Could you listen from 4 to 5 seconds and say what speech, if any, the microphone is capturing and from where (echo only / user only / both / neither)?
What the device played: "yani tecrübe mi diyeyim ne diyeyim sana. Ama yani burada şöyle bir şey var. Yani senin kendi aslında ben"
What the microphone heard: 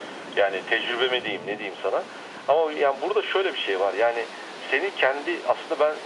echo only